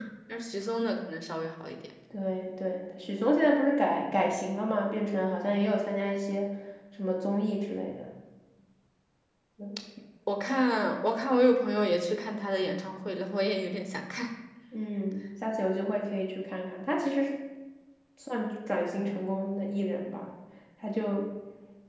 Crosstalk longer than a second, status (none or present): none